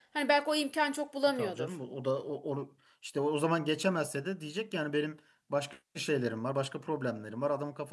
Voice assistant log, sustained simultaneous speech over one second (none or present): none